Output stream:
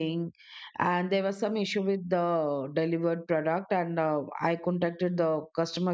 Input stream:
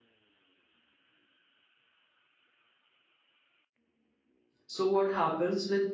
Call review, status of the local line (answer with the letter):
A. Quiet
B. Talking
B